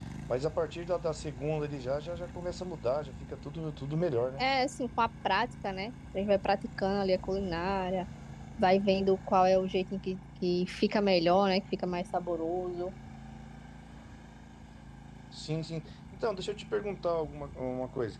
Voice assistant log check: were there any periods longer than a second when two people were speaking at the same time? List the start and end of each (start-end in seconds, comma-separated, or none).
none